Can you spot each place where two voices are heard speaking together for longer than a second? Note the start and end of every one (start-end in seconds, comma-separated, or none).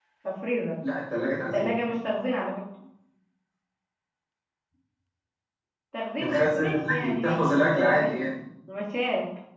6.2-8.1